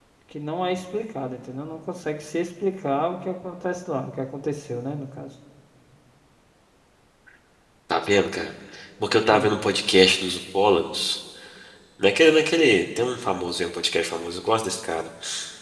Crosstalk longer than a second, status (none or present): none